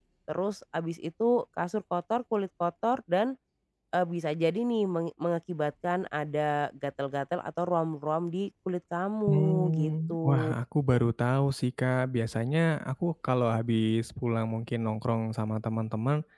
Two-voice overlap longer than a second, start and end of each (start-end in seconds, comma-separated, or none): 9.3-10.5